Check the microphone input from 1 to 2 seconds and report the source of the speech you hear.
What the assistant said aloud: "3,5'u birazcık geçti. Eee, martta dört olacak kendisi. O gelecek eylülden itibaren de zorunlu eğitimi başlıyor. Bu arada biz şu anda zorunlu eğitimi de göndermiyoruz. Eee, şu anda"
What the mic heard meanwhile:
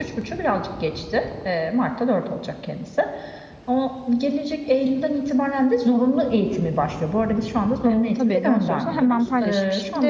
echo only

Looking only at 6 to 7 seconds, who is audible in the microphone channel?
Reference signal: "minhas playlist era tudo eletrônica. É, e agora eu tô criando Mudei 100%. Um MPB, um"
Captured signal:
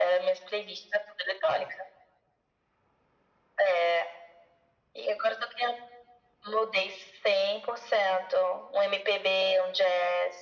echo only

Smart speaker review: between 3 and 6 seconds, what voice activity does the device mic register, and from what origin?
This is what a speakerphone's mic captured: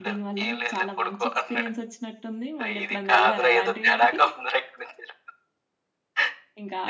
both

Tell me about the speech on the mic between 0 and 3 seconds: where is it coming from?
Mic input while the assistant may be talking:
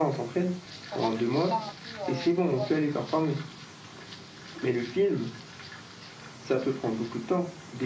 both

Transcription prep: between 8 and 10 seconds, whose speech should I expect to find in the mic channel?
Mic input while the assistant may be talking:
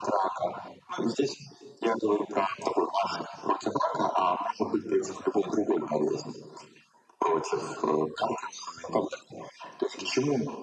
echo only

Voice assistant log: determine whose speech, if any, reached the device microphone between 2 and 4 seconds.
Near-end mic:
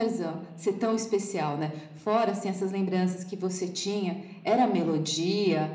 echo only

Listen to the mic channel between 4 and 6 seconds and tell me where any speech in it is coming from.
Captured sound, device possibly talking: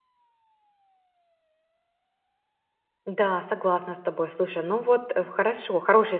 user only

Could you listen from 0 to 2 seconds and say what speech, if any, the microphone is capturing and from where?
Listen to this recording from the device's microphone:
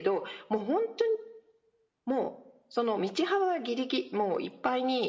echo only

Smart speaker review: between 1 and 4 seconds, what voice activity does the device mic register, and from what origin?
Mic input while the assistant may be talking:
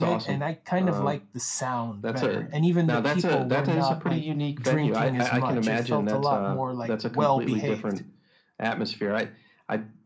both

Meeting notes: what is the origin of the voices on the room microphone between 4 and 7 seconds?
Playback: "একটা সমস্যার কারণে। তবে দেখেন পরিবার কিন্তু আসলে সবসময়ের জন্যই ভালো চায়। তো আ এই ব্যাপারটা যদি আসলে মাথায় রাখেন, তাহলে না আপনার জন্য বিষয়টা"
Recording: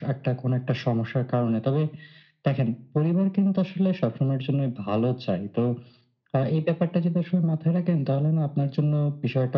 echo only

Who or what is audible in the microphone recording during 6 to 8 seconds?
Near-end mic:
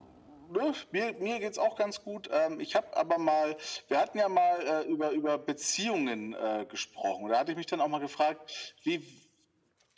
echo only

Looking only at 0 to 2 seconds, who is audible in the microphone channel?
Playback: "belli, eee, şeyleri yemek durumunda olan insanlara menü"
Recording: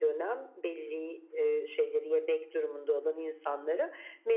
echo only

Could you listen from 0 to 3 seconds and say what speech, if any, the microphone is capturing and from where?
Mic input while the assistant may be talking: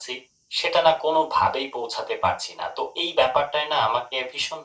echo only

